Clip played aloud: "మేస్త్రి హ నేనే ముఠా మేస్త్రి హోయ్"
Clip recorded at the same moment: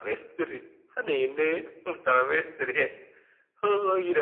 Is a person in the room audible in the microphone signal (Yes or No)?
No